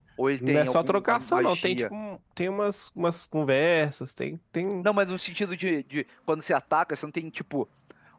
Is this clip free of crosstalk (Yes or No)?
No